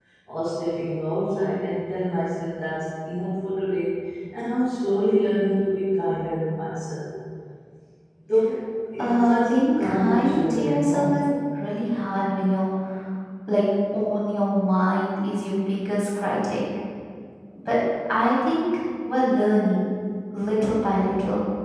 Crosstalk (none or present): present